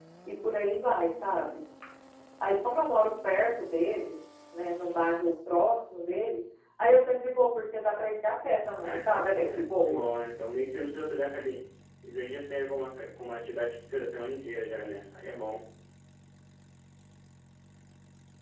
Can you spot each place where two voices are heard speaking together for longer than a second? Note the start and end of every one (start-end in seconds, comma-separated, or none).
8.8-10.1